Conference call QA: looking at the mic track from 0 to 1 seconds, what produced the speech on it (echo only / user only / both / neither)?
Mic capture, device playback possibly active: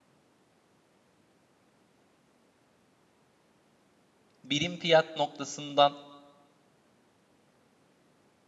neither